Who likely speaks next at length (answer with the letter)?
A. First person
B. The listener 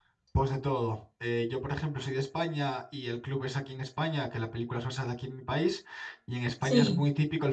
A